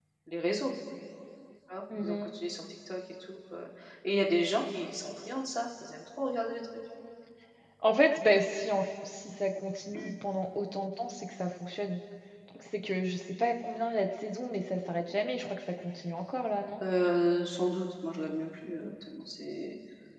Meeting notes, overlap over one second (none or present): none